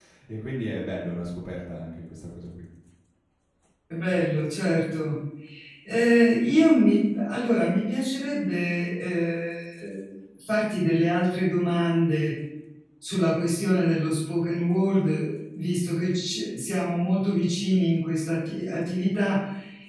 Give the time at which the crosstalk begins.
none

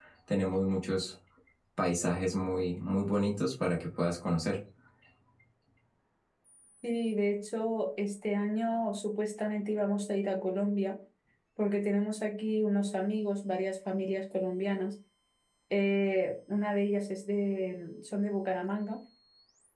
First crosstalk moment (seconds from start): none

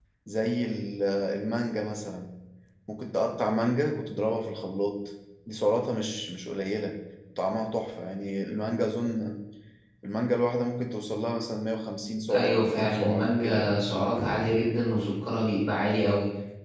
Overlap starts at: 12.3 s

